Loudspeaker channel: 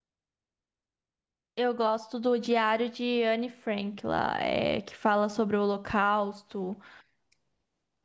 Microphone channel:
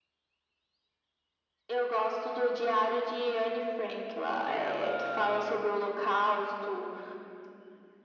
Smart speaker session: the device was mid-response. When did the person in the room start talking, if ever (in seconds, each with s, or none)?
4.4 s